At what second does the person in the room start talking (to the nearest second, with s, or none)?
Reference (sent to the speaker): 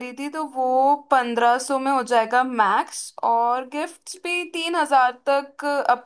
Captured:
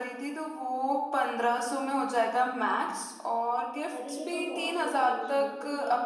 4 s